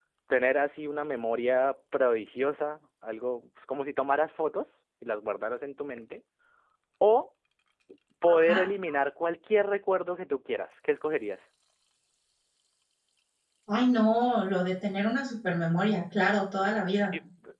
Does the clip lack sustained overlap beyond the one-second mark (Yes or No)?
Yes